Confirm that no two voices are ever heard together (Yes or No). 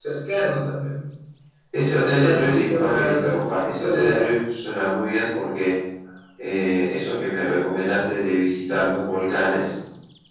No